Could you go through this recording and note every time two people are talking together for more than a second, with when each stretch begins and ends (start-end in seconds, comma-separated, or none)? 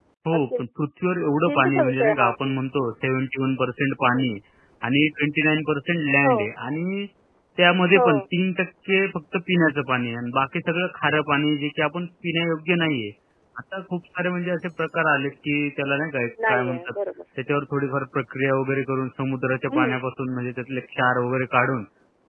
1.4-2.9